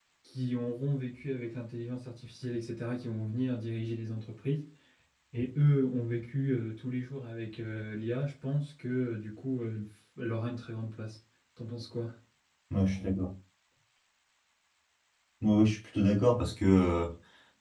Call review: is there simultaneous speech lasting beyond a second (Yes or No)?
No